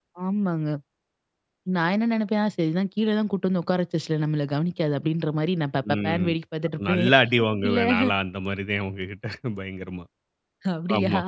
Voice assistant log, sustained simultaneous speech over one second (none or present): none